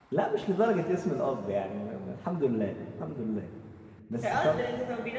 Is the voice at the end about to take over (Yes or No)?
Yes